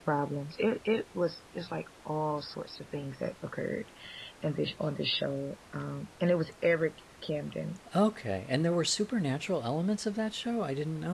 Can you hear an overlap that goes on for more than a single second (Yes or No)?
No